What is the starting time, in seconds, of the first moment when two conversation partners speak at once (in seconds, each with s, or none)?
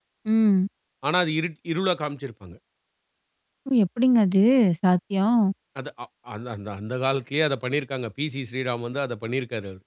none